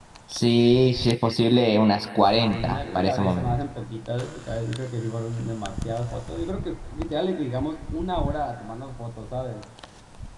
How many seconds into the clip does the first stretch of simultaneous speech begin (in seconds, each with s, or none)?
2.3 s